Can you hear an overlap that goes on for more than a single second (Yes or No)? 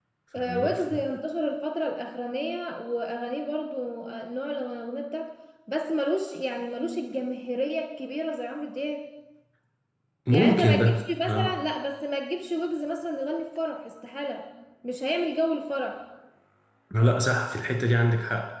Yes